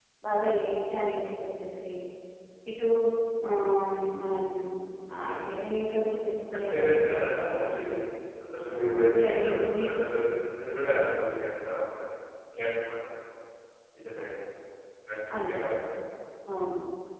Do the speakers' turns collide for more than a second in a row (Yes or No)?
Yes